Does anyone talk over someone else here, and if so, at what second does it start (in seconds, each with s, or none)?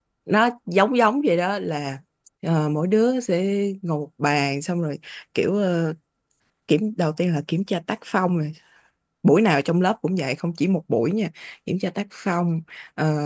none